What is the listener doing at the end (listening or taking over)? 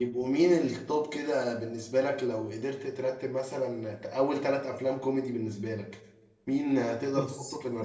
listening